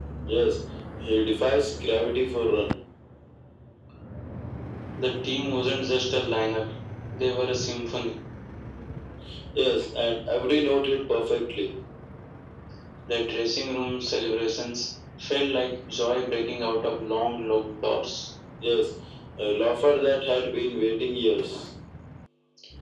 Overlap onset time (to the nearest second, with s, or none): none